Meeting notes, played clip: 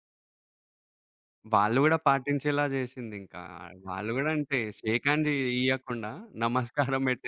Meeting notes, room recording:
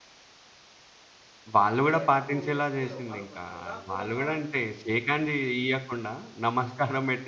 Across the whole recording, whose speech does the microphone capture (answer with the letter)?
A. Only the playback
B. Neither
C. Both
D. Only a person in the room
C